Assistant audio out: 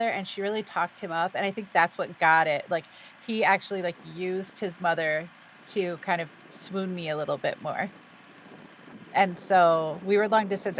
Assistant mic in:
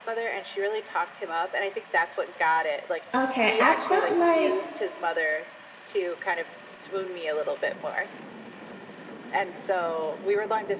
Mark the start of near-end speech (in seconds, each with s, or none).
3.1 s